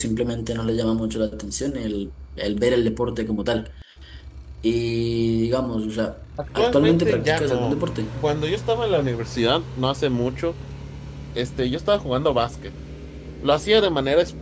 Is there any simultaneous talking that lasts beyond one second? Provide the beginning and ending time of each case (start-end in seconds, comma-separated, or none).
6.6-7.8